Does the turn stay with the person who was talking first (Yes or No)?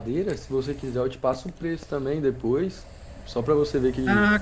No